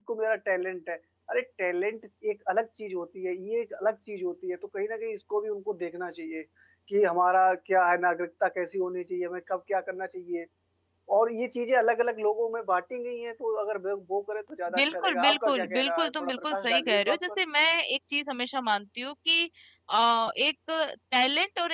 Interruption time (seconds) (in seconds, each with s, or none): 14.7 s